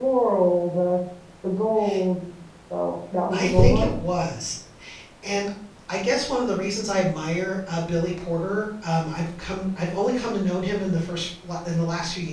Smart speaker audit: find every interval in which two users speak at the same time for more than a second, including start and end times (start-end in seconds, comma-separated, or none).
none